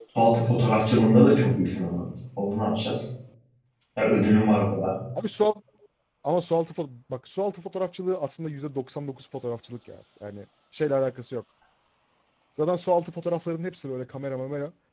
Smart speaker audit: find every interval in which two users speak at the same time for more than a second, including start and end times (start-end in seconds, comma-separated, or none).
none